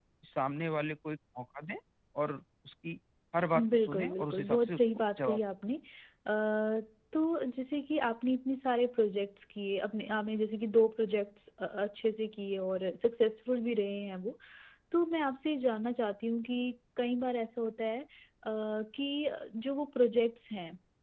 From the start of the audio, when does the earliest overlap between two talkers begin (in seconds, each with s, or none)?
3.5 s